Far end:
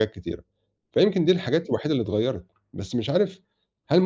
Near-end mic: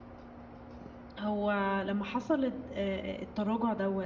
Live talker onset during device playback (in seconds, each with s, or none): 1.2 s